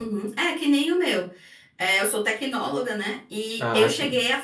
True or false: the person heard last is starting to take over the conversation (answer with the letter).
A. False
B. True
A